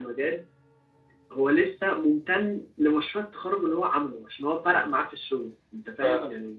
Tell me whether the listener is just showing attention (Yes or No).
No